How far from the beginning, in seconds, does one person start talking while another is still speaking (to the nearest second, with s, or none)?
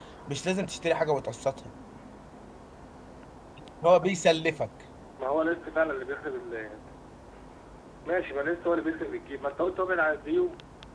none